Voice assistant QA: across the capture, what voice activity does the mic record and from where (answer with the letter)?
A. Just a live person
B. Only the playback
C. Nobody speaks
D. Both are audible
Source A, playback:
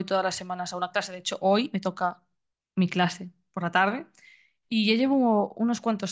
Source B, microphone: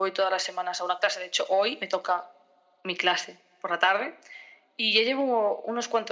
B